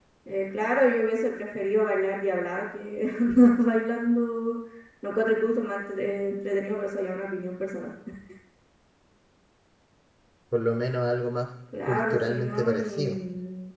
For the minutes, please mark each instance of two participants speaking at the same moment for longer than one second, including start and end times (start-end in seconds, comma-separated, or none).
11.8-13.2